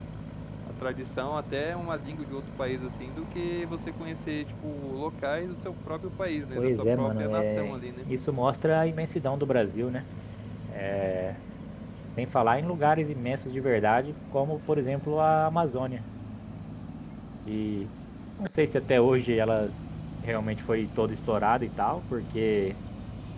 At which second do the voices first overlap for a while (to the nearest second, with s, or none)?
7 s